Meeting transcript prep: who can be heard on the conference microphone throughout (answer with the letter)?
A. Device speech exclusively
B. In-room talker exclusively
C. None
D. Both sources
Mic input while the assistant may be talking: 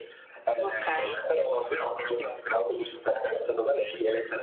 D